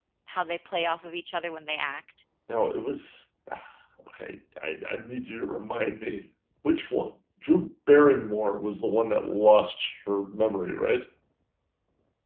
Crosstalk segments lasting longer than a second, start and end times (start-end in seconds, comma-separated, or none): none